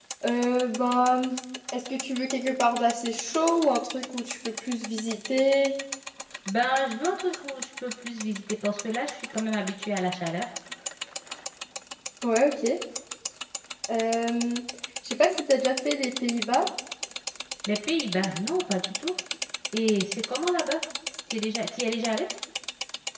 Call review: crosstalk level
none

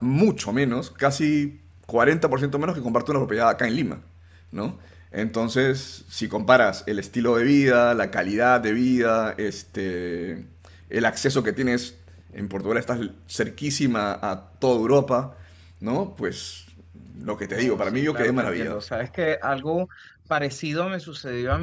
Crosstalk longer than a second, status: present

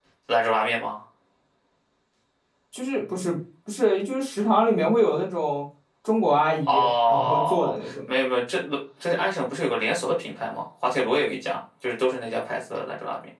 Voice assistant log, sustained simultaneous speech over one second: present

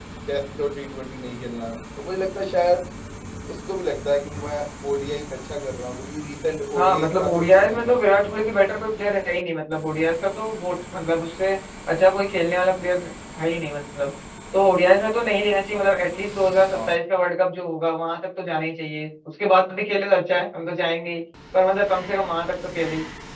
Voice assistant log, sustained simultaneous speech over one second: present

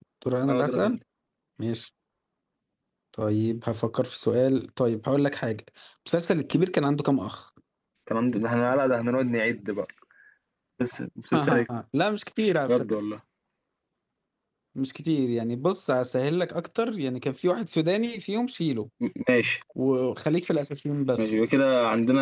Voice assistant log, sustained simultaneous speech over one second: none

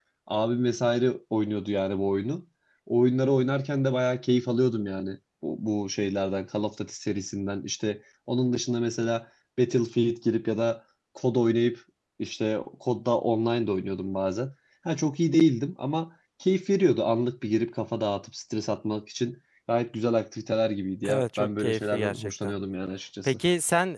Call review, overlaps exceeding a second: present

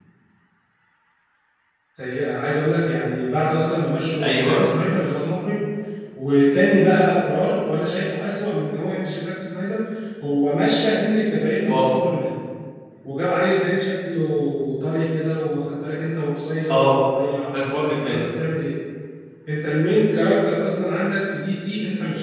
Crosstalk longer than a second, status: none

